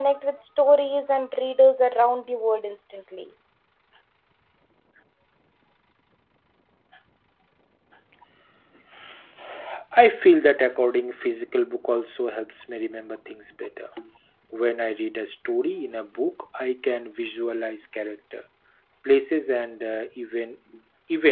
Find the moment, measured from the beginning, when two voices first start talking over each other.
none

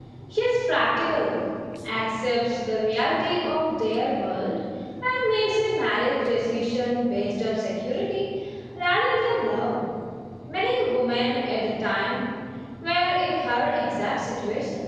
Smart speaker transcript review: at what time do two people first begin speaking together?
none

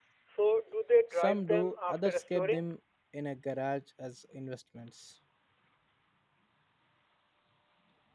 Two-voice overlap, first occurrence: 1 s

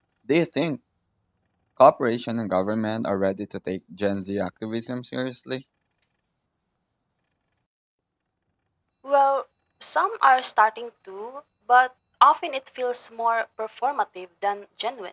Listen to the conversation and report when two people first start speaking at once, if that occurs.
none

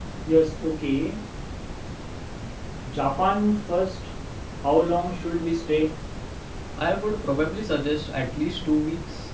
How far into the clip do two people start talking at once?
none

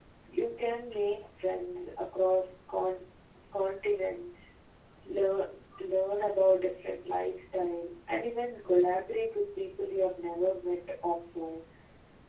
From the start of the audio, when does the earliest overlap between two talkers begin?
none

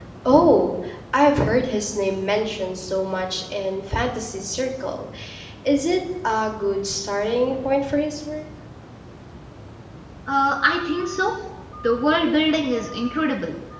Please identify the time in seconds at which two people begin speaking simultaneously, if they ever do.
none

